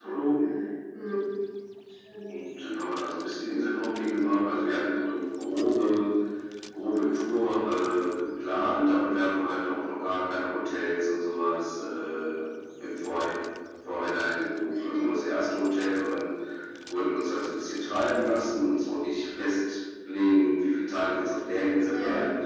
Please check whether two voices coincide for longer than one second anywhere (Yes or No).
No